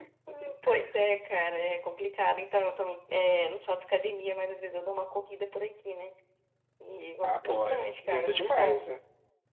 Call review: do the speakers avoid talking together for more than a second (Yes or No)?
No